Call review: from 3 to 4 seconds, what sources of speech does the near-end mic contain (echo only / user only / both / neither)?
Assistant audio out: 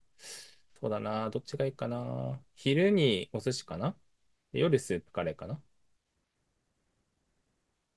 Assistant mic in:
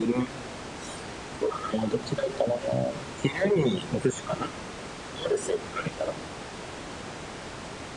echo only